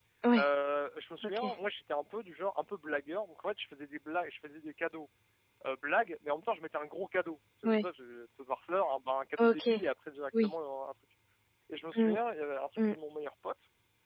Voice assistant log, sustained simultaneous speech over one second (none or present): none